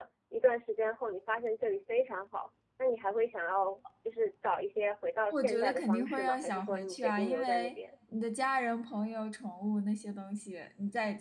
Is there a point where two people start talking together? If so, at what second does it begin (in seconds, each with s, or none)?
5.3 s